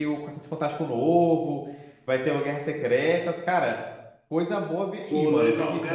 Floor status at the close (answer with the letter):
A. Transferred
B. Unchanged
A